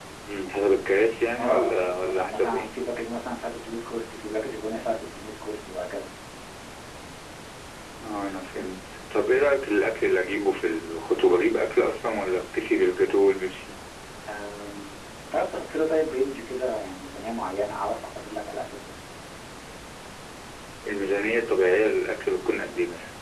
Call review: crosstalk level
present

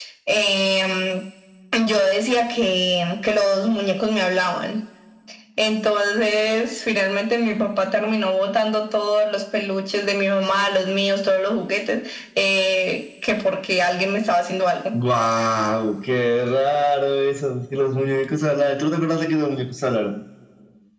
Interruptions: none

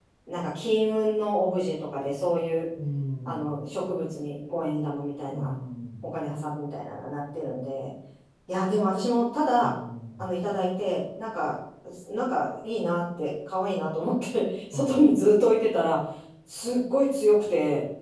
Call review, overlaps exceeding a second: none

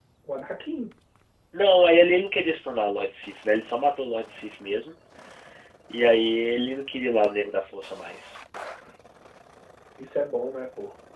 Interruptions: none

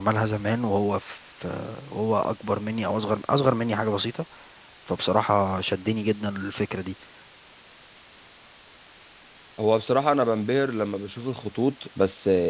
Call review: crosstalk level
none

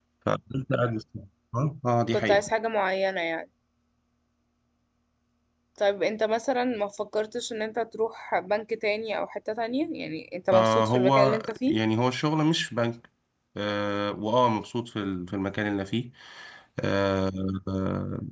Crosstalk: present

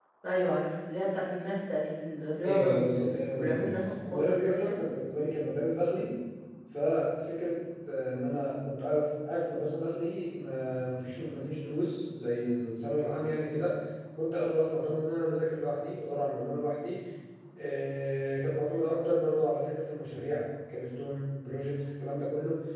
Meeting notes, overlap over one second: present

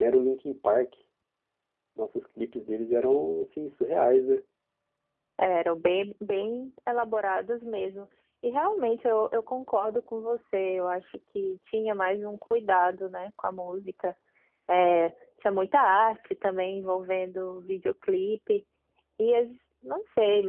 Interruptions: none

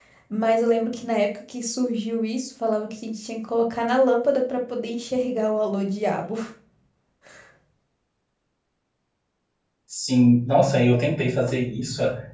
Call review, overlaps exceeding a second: none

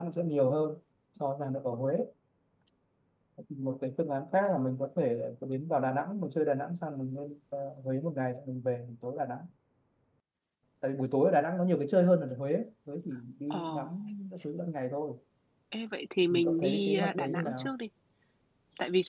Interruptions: present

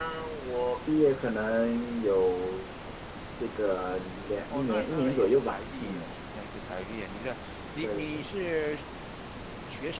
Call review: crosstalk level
present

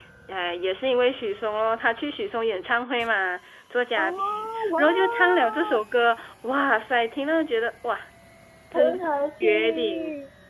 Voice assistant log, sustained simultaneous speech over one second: present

